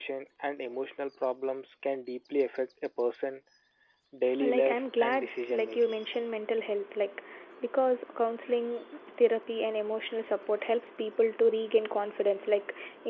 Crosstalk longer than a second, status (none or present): present